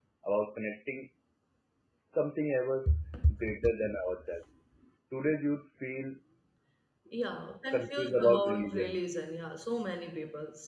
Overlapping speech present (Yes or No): Yes